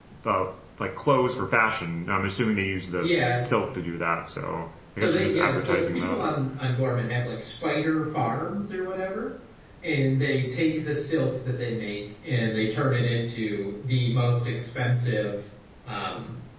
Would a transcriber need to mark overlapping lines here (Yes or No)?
Yes